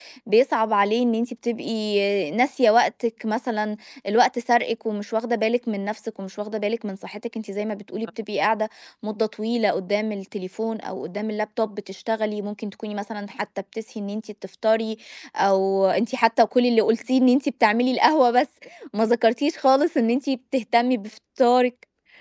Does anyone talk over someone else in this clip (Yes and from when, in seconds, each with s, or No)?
No